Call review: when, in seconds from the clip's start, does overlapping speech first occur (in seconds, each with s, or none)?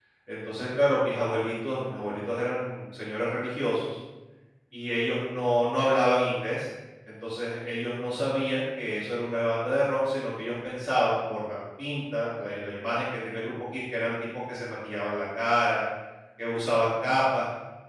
none